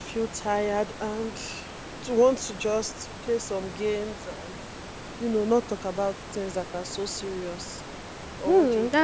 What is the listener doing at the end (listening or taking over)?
taking over